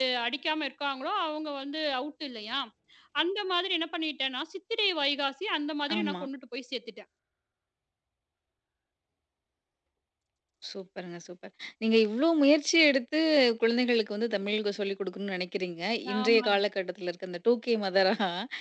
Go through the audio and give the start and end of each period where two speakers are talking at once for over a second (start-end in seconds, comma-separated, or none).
none